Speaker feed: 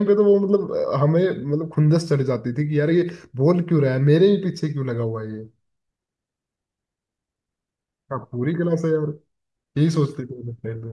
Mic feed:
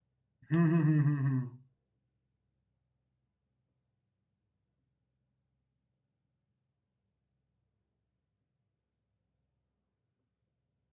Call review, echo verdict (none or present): none